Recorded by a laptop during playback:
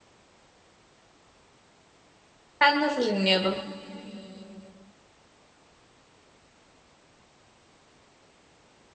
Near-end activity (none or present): present